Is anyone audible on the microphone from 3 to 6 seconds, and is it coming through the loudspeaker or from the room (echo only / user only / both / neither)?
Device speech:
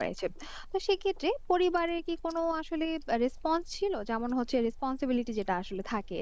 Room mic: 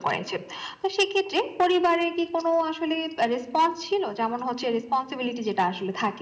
echo only